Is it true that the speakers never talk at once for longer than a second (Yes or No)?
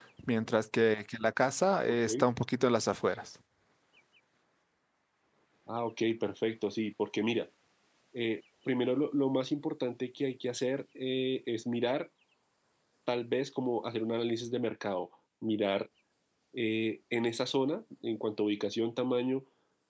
Yes